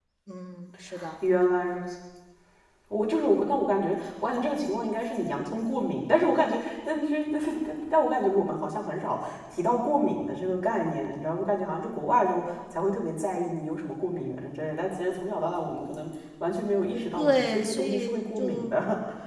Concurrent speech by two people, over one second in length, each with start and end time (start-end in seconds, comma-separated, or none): 16.9-18.8